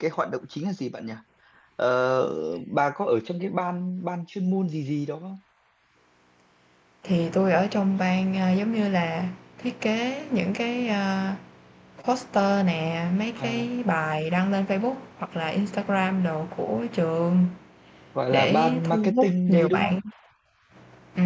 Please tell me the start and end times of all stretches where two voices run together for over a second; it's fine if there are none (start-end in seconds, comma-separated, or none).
18.3-19.9